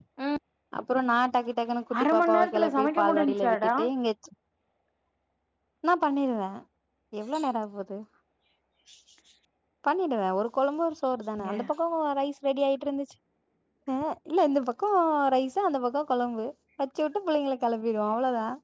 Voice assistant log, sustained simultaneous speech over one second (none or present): present